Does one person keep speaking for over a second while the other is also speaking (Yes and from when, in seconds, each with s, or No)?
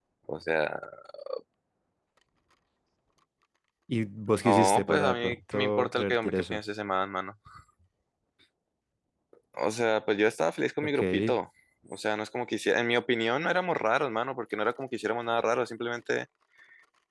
Yes, from 4.4 s